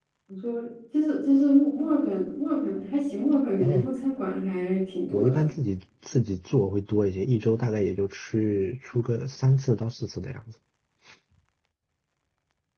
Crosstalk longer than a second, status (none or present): none